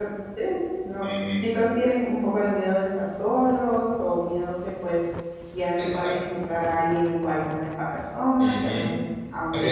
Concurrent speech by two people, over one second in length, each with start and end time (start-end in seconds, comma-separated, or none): none